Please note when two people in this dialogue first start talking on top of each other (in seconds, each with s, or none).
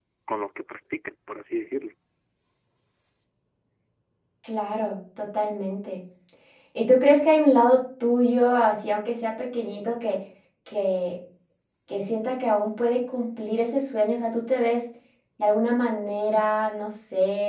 none